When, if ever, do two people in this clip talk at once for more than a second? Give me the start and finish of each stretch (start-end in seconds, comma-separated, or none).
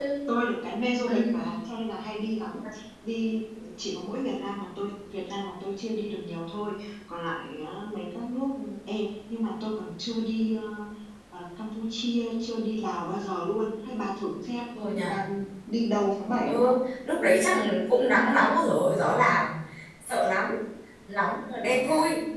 none